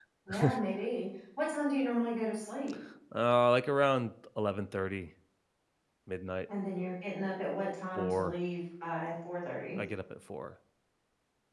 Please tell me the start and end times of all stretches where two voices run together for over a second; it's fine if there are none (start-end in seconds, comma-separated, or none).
none